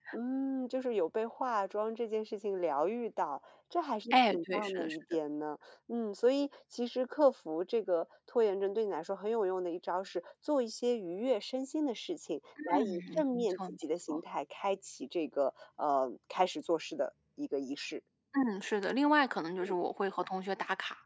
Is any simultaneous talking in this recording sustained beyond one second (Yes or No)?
Yes